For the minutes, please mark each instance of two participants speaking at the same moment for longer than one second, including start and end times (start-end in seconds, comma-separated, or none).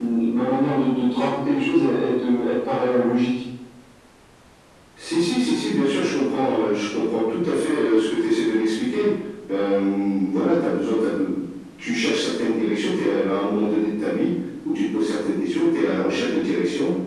none